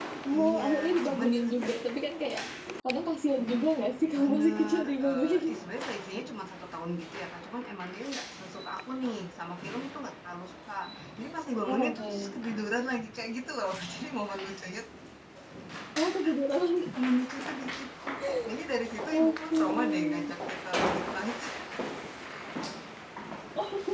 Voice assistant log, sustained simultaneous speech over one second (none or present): present